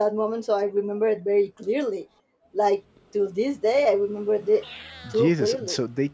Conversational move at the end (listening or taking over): taking over